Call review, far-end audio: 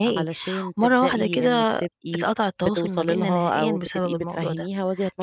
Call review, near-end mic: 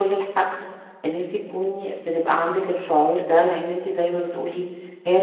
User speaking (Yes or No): Yes